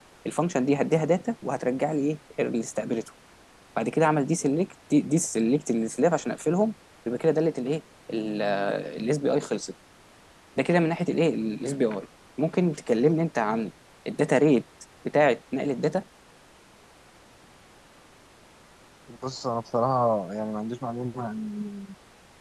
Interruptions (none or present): none